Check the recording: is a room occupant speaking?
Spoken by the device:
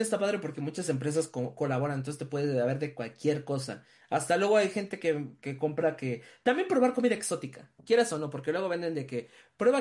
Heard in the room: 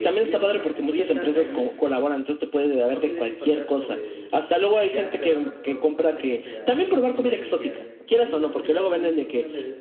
Yes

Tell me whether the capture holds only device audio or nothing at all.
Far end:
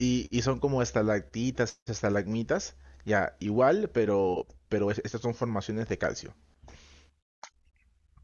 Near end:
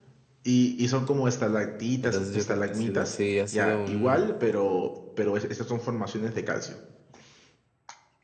No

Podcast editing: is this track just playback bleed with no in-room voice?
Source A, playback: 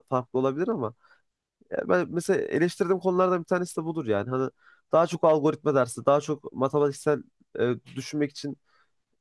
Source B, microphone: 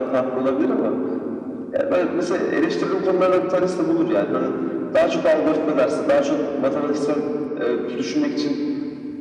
Yes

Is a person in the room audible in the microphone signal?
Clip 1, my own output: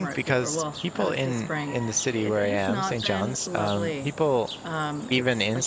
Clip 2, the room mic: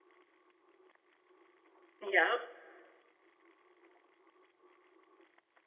Yes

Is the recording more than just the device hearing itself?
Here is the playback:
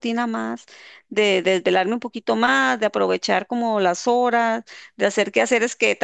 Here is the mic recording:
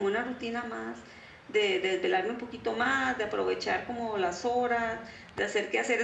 No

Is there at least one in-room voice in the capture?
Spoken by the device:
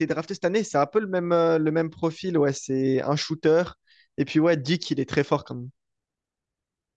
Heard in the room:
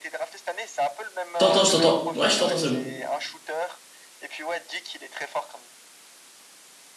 Yes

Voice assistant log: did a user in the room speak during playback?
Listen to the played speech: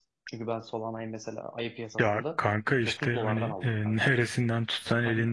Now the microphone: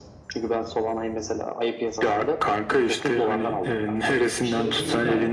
Yes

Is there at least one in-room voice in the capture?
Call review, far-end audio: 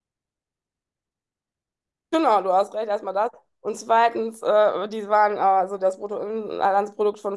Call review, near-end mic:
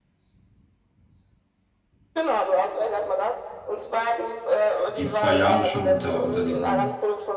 Yes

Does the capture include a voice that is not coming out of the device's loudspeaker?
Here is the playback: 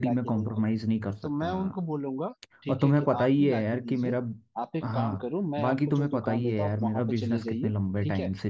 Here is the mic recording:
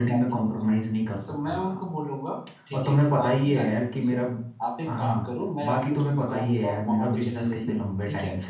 No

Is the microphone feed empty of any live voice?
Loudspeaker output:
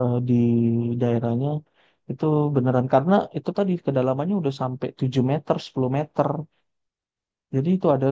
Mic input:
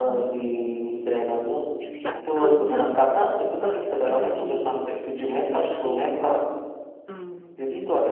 No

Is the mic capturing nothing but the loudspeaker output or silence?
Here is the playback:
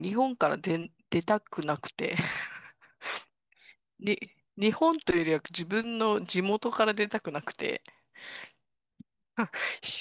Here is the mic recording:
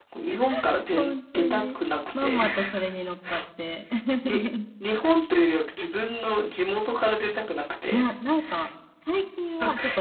No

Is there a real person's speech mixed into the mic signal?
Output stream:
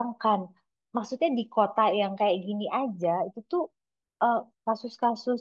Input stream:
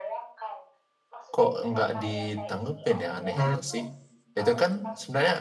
Yes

